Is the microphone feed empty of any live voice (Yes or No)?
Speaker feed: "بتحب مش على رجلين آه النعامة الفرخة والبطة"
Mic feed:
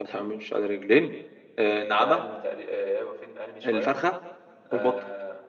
No